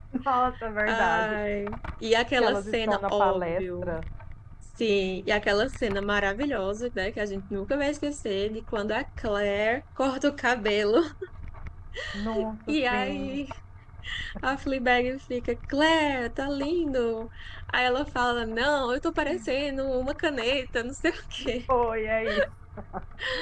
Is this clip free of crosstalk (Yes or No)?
No